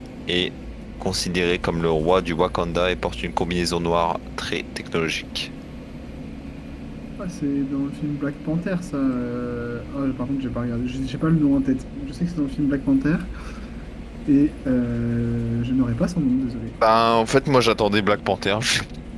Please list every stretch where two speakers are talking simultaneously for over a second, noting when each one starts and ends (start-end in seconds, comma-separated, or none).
none